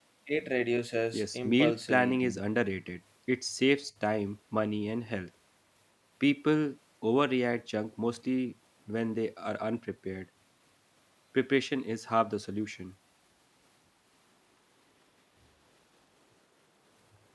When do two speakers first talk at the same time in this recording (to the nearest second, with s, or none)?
1 s